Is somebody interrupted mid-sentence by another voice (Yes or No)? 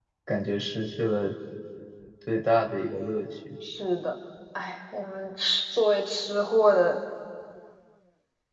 No